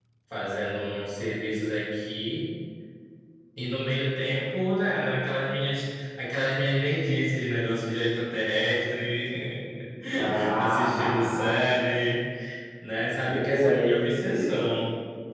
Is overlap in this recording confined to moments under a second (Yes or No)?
No